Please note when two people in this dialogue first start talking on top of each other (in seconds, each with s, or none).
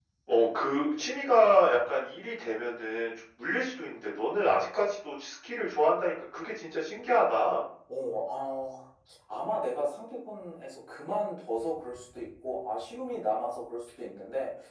none